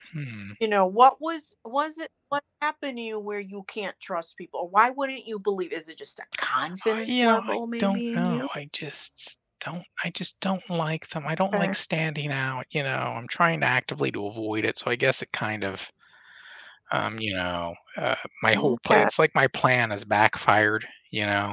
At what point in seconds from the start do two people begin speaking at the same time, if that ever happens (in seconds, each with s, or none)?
6.8 s